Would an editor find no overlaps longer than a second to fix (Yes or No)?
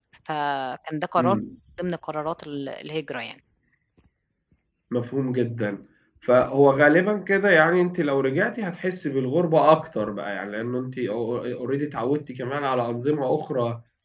Yes